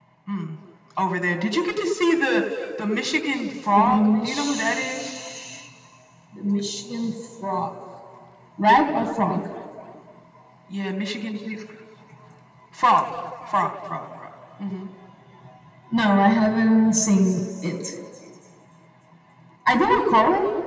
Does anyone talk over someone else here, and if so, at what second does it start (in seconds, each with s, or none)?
3.8 s